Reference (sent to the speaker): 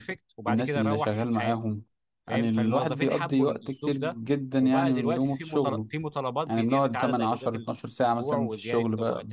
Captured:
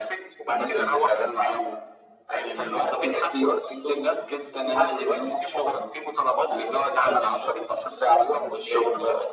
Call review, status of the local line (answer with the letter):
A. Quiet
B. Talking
A